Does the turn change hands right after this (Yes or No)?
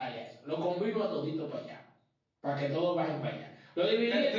Yes